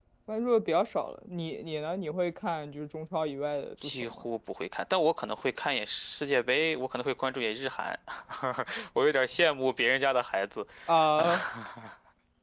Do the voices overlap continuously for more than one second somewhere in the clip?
No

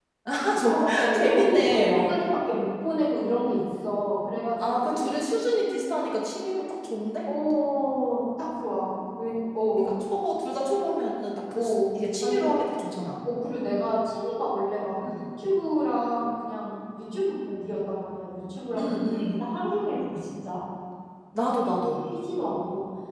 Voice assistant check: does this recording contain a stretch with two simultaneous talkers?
Yes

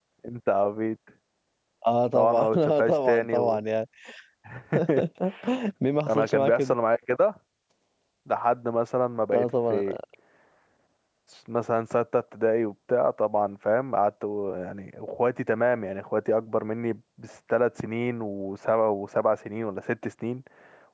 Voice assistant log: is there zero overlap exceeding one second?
No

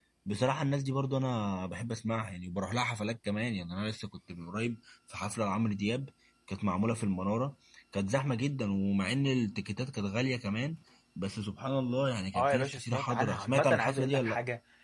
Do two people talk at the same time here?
Yes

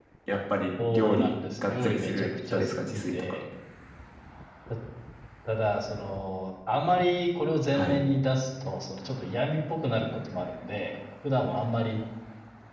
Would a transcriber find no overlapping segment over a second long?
No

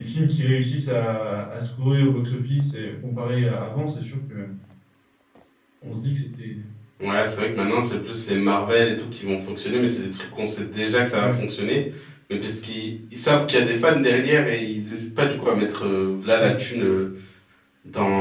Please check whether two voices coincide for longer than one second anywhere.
No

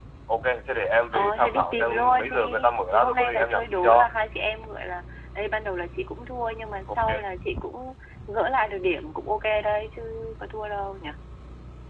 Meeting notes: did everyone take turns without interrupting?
No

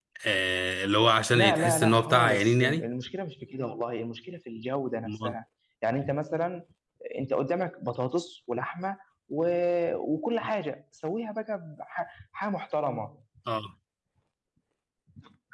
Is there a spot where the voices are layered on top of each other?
Yes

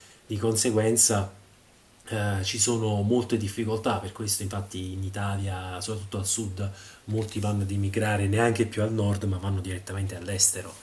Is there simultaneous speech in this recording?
No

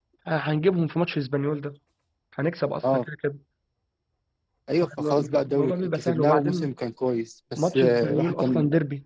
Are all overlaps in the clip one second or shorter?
No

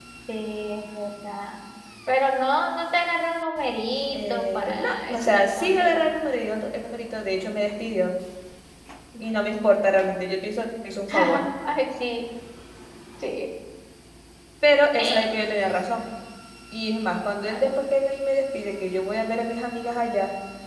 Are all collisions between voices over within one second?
No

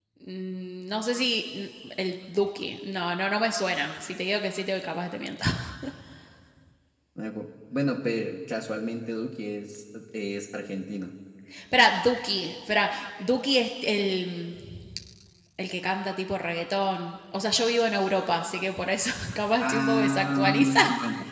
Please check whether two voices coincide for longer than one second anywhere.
Yes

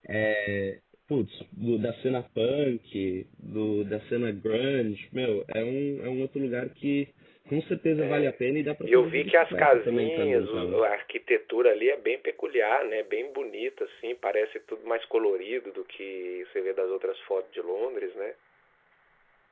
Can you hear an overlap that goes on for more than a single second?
Yes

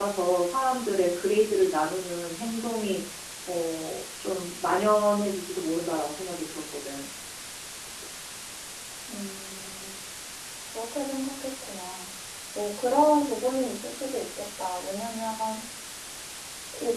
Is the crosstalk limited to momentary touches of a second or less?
Yes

